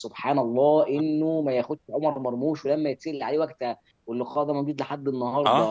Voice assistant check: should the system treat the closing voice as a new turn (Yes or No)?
No